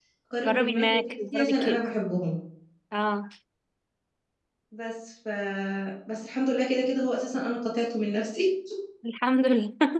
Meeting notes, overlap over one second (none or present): present